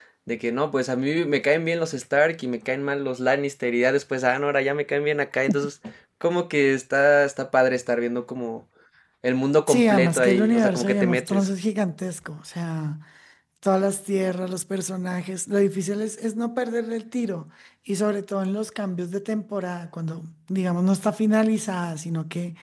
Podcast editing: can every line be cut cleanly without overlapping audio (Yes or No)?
No